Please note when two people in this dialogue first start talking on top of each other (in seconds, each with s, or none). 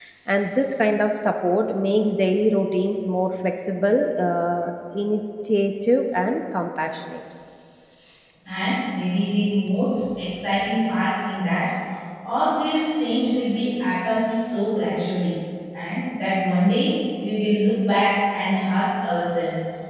none